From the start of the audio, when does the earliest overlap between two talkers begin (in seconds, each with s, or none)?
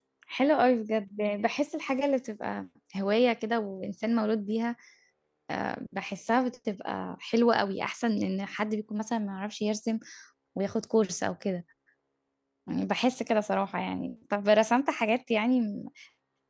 none